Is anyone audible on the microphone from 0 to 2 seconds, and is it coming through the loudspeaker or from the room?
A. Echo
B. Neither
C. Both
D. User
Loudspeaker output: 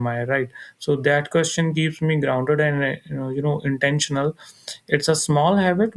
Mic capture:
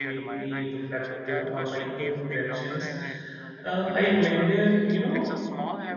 C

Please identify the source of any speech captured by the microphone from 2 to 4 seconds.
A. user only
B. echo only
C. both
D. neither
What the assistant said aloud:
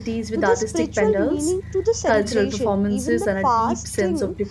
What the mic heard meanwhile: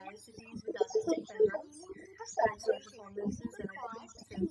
B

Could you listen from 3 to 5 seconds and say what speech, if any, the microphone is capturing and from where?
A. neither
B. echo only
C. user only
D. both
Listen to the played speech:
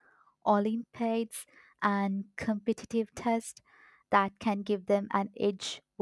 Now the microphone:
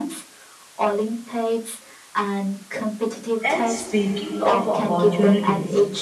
D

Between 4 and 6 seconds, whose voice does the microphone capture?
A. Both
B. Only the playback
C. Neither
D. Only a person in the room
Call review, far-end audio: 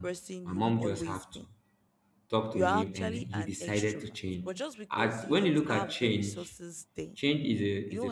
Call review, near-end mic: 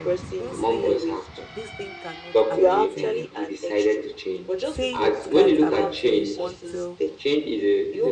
A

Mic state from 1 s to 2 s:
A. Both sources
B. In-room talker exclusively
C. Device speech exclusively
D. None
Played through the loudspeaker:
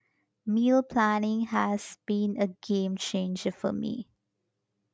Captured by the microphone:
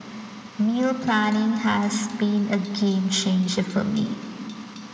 C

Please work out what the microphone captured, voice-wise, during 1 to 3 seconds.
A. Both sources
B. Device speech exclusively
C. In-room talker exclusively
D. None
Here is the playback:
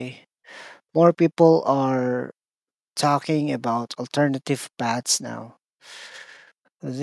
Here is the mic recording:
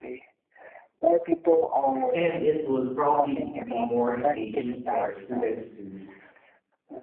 A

